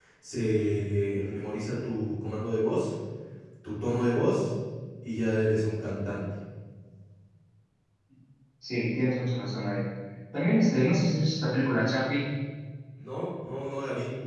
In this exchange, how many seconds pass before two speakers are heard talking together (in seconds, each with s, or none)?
none